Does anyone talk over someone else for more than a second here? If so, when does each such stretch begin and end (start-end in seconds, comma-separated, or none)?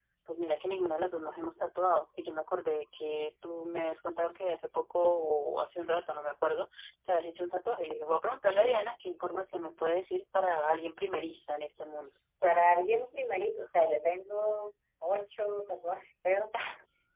none